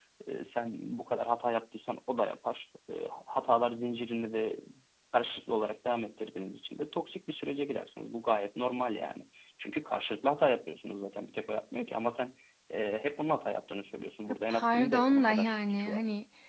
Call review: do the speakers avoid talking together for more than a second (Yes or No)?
No